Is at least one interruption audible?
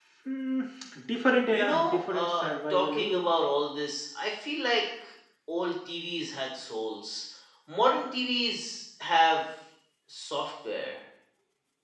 Yes, from 1.5 s

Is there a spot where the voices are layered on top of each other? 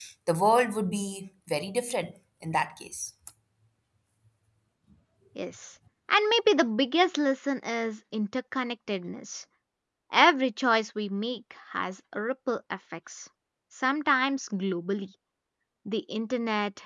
No

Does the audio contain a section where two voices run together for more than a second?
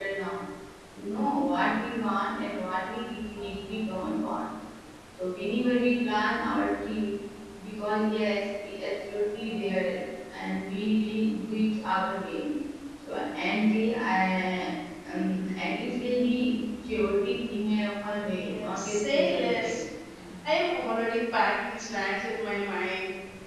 Yes, from 18.3 s

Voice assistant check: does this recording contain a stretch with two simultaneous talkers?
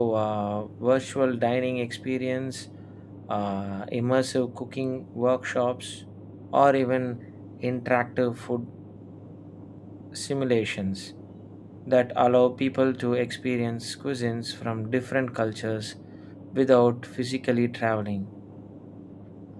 No

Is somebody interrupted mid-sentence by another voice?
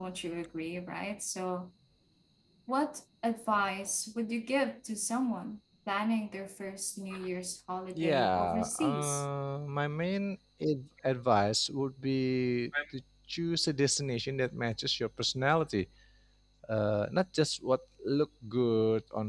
Yes, from 8.0 s

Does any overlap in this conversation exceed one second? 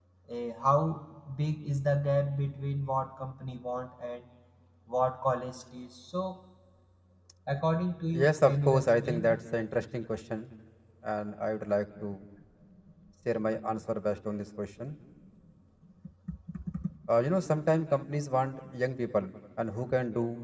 Yes, from 8.1 s

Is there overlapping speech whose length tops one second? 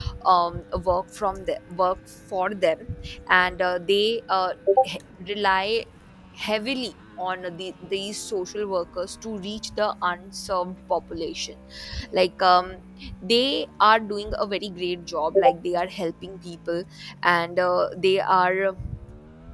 No

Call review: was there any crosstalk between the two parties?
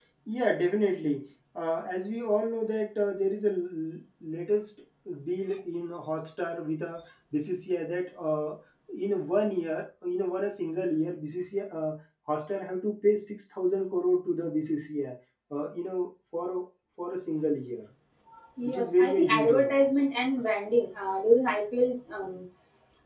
Yes, from 18.6 s

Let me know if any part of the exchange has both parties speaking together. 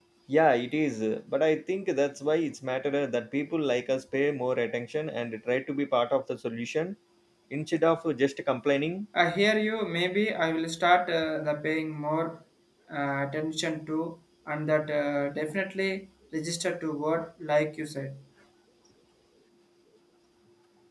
No

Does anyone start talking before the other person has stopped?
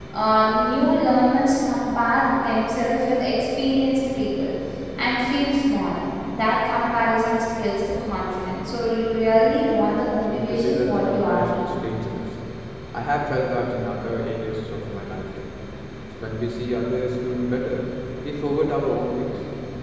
Yes, from 10.3 s

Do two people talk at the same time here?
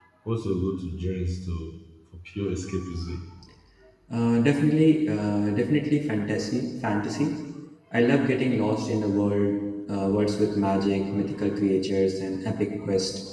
No

